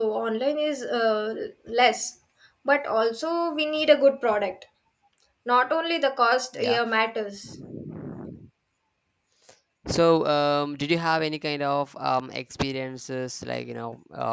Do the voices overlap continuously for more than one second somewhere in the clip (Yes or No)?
No